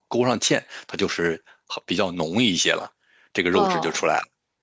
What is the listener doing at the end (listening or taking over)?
taking over